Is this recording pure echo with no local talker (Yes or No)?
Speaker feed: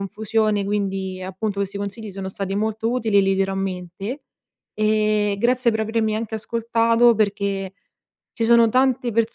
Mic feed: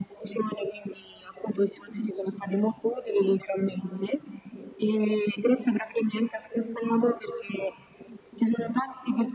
Yes